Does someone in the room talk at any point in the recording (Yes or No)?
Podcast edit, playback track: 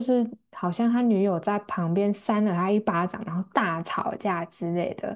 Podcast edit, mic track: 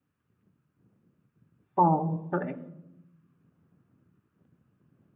Yes